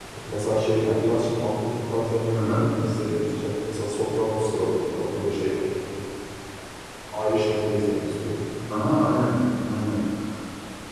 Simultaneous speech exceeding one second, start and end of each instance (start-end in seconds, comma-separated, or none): none